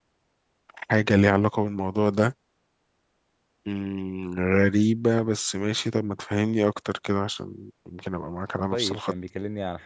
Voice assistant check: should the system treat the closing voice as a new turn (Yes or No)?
Yes